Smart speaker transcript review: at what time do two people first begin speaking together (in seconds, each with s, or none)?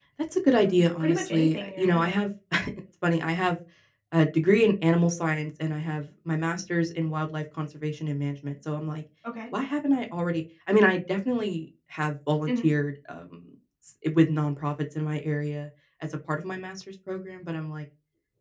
0.5 s